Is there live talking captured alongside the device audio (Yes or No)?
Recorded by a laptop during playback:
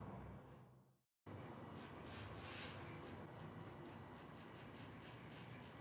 No